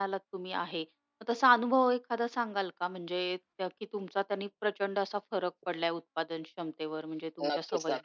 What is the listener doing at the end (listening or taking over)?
taking over